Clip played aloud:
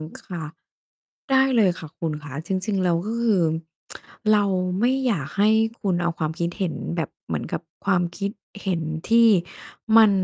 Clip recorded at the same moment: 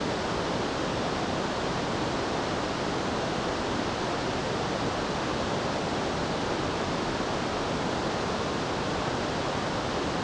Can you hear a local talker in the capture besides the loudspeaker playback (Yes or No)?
No